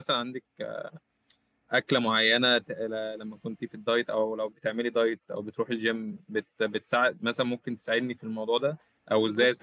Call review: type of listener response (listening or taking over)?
listening